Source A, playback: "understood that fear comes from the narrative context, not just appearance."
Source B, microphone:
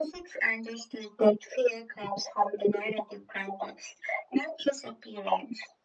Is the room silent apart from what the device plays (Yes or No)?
Yes